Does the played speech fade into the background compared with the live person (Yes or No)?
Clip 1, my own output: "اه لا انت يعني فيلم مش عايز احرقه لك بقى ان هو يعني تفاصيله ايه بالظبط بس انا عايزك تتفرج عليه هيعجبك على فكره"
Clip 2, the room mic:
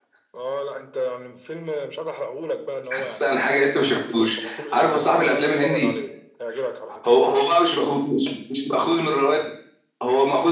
Yes